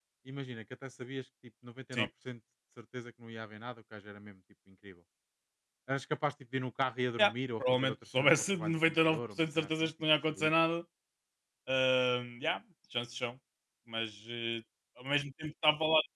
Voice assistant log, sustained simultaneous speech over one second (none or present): present